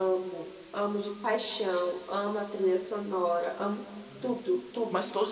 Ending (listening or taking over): taking over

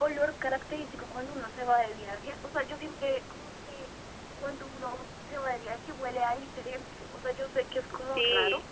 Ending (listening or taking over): listening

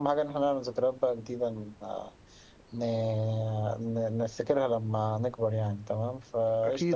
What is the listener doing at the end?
listening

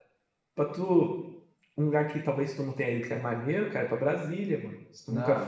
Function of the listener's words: taking over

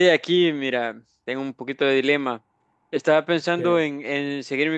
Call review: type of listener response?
listening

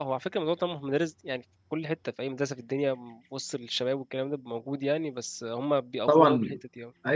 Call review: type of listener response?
taking over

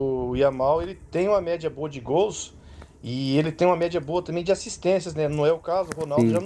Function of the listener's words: listening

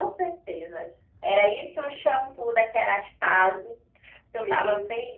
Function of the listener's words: taking over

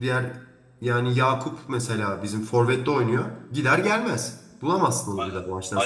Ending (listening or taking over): taking over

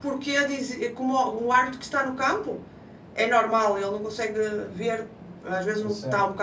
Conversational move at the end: listening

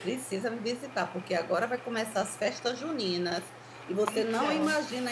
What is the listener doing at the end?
listening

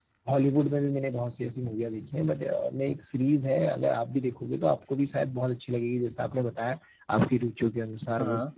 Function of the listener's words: listening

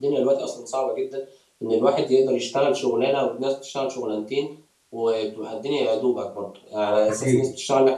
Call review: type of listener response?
listening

